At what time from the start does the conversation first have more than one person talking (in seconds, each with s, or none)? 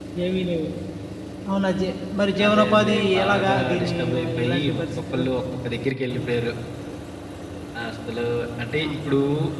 2.4 s